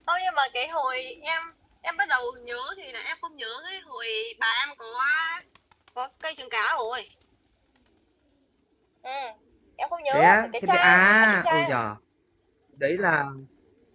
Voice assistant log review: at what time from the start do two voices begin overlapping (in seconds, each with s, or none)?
10.1 s